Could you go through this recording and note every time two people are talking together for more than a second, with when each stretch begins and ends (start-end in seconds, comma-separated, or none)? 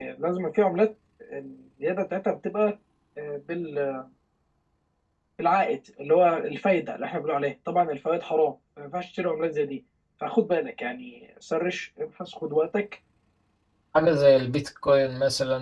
none